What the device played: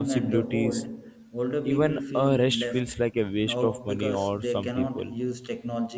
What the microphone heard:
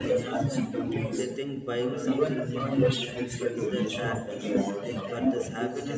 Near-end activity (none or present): present